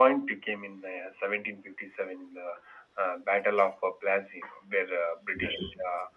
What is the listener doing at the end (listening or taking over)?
listening